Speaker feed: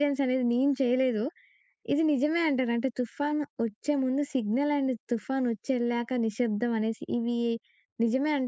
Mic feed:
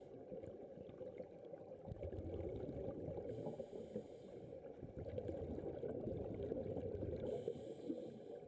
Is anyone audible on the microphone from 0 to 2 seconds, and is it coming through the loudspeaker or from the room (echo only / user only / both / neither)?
neither